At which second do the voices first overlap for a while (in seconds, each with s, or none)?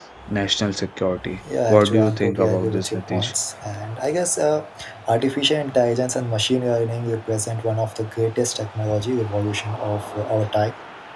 1.7 s